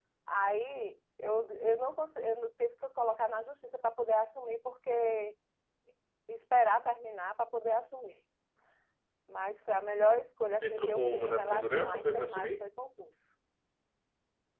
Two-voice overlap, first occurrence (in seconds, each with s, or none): 10.6 s